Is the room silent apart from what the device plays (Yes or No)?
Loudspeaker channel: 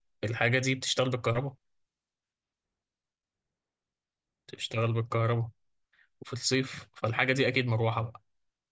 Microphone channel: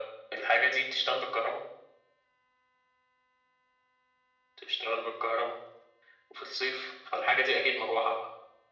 Yes